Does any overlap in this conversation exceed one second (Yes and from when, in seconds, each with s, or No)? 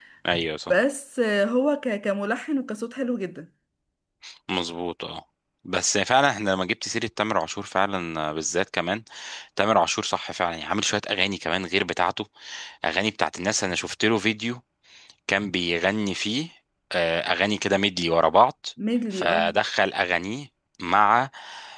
No